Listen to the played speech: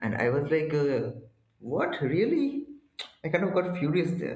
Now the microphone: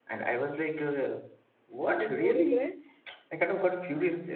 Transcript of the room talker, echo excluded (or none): having no regrets,